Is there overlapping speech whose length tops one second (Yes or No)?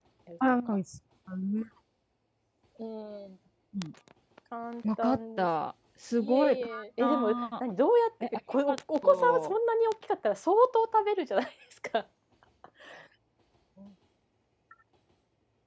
Yes